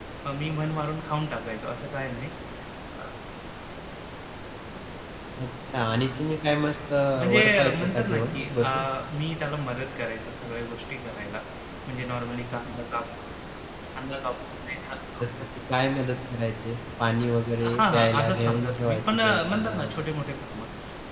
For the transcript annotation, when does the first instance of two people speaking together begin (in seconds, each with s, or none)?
7.3 s